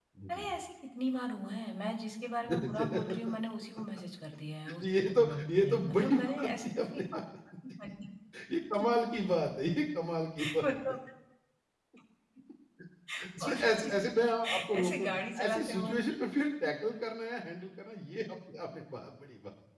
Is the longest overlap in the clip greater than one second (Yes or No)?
Yes